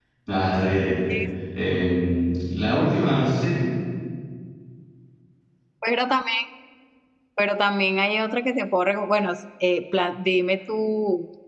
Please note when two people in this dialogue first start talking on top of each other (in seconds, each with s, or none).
none